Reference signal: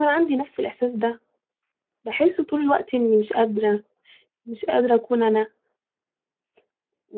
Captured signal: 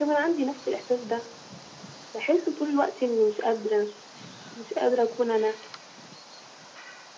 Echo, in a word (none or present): present